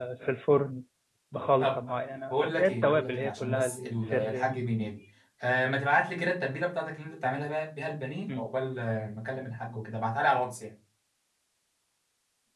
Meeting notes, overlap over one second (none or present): present